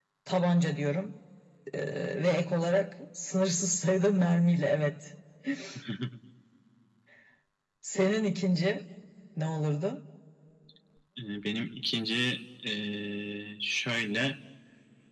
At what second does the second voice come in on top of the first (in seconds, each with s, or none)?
none